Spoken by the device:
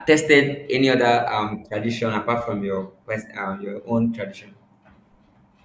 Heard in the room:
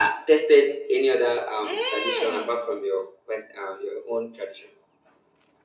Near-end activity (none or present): present